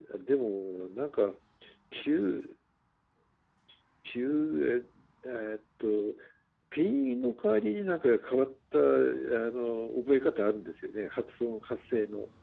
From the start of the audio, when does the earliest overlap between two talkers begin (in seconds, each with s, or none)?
none